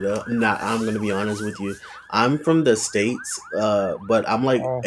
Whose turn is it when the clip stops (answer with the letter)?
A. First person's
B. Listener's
A